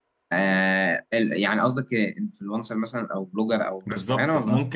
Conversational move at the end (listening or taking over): taking over